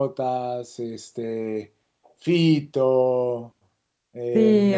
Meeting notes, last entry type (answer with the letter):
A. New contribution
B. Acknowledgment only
A